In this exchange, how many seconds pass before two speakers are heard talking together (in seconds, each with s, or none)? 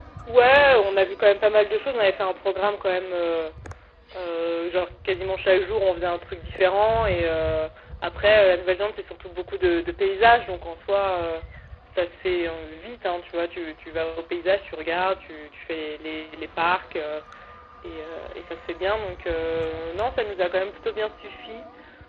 none